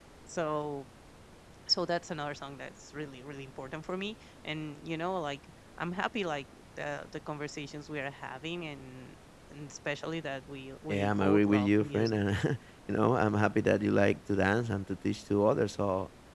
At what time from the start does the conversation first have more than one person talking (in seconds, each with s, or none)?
10.9 s